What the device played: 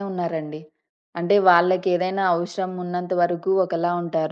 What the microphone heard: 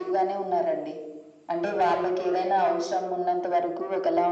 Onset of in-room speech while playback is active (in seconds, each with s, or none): none